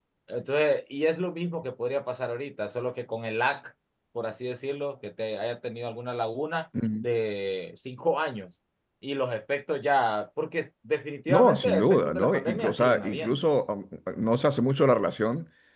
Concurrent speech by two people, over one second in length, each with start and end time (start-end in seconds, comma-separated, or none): 11.3-13.5